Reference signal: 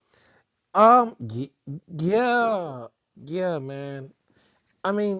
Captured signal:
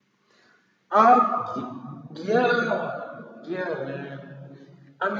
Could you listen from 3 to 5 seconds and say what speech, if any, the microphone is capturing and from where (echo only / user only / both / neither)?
echo only